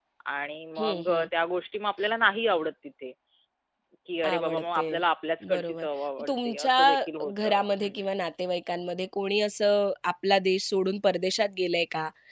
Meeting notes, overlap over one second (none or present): present